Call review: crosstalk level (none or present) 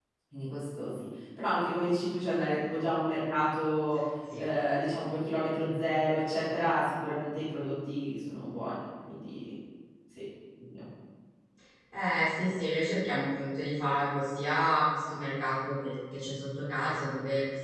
none